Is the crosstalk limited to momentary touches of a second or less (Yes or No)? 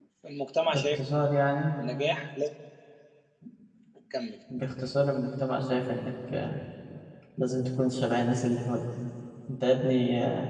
Yes